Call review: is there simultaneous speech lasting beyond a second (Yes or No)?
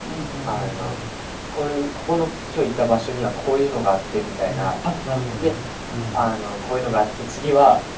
No